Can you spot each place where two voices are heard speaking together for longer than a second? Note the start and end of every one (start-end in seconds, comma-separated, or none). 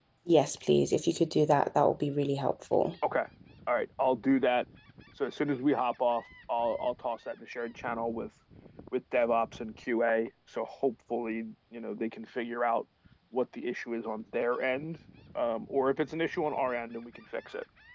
none